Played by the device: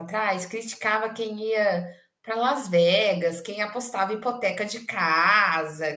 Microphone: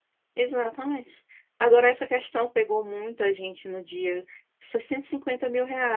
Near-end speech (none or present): present